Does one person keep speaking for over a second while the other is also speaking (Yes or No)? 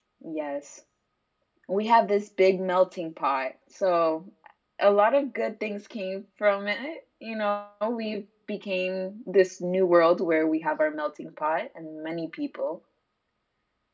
No